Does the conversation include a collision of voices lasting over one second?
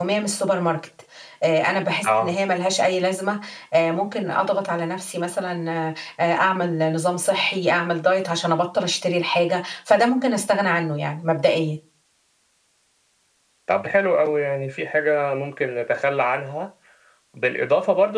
No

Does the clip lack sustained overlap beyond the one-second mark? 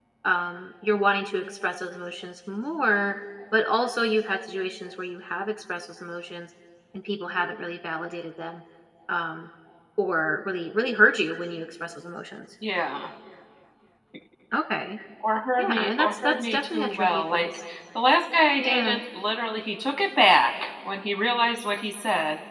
No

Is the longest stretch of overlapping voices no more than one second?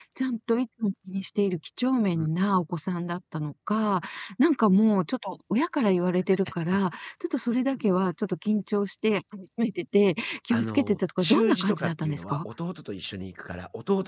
No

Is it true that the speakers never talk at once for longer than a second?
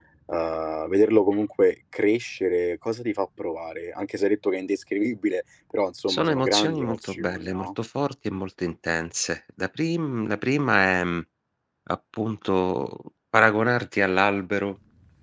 No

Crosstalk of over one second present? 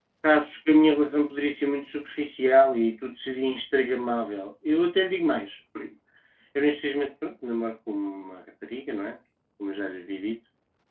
No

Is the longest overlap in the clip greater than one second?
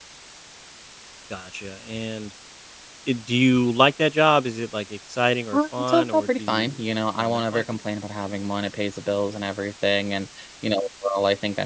Yes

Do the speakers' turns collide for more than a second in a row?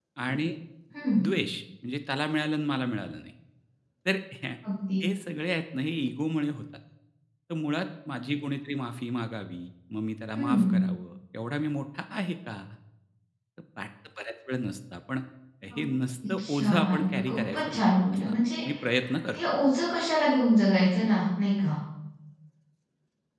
Yes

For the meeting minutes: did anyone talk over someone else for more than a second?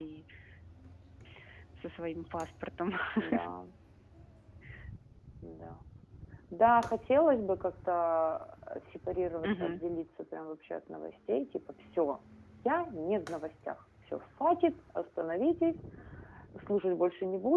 No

